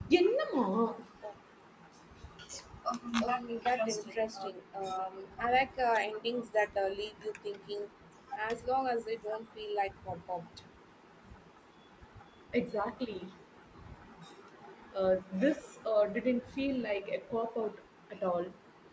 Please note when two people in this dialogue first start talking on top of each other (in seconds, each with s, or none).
3.2 s